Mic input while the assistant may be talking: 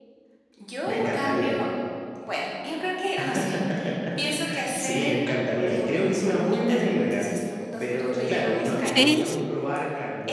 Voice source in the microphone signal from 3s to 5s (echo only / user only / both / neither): echo only